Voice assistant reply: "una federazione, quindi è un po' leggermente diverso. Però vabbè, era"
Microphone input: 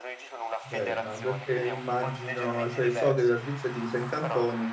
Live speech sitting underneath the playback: No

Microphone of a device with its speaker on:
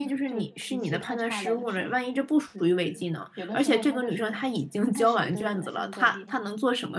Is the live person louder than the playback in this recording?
Yes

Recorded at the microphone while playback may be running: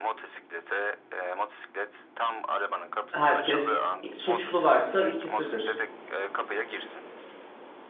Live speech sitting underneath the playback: No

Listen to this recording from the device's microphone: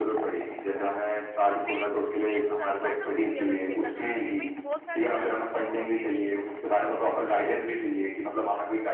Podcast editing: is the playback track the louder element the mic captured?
Yes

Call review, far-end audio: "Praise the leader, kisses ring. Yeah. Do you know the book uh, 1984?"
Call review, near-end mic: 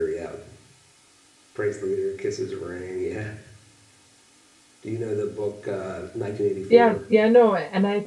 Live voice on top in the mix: Yes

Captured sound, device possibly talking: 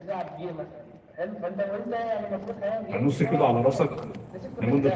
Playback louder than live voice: No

